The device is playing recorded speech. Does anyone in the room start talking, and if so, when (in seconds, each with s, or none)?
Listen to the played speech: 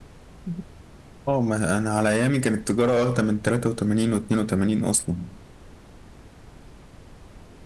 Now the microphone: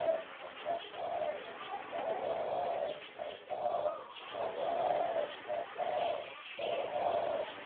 none